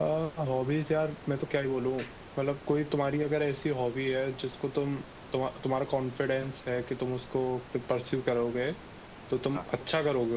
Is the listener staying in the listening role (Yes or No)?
Yes